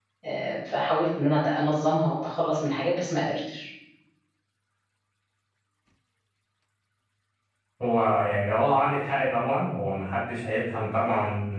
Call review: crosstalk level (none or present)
none